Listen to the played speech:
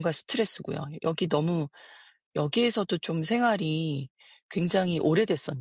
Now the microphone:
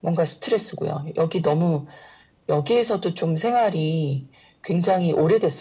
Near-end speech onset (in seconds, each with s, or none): none